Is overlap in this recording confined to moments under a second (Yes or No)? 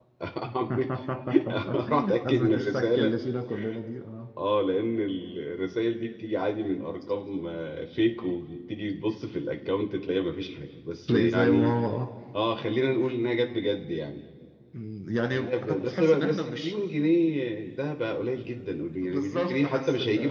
No